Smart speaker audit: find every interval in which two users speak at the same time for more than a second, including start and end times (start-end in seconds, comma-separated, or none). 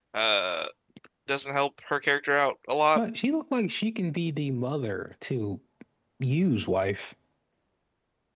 none